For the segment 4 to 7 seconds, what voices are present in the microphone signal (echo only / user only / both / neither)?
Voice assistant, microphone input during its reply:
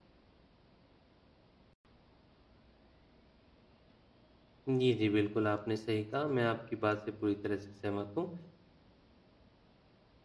user only